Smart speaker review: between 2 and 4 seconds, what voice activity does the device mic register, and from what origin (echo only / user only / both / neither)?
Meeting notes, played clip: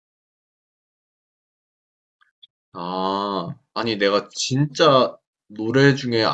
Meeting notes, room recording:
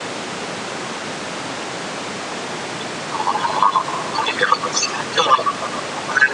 echo only